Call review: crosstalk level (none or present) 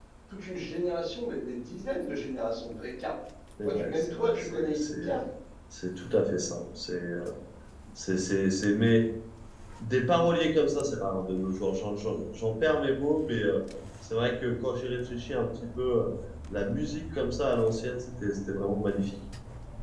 present